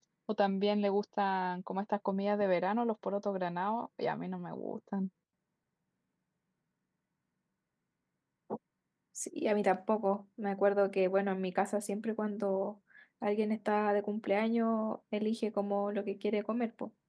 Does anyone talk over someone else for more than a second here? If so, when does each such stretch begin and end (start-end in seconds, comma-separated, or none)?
none